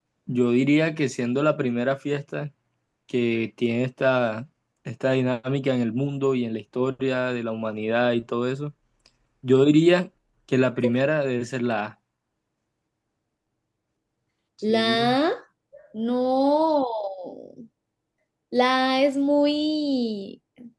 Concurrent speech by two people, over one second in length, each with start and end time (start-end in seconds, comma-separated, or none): none